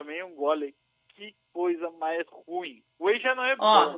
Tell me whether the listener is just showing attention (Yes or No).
No